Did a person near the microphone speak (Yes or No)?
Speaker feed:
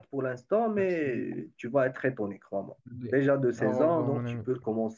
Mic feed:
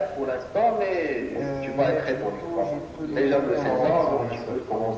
Yes